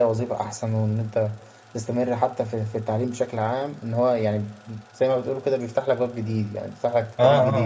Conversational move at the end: taking over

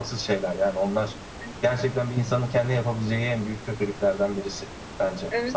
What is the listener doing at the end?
taking over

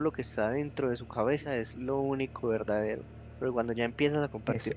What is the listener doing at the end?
listening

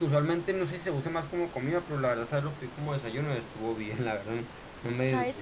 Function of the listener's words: taking over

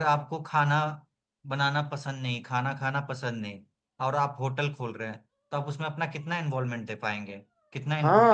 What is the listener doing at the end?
taking over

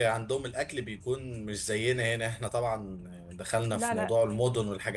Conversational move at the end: listening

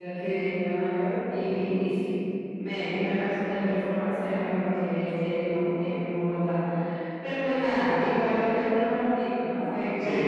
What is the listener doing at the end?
listening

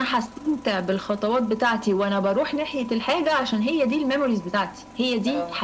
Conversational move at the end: listening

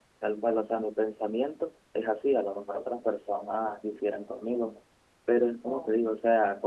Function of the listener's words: listening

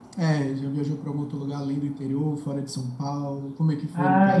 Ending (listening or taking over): taking over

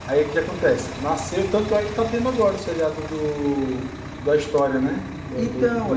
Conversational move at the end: taking over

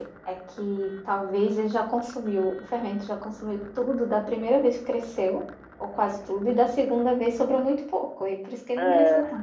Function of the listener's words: taking over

